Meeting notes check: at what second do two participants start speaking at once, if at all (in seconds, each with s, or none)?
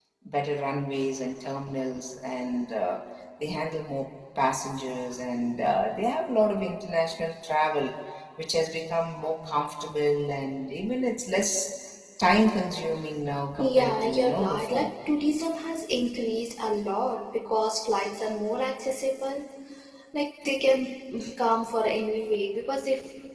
13.5 s